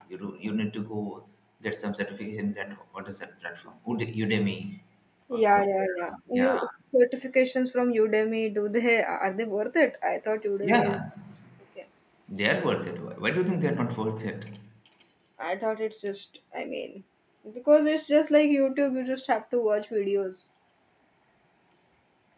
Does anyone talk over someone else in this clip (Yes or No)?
Yes